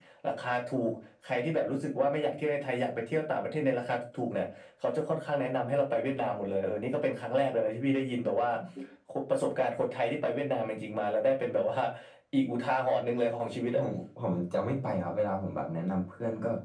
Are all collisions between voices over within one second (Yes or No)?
Yes